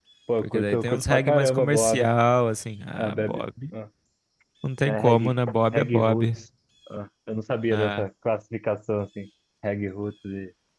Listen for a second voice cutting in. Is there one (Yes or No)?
Yes